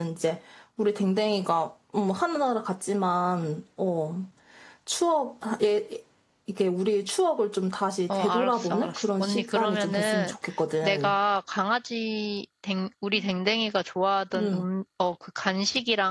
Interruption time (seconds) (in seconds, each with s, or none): 8.2 s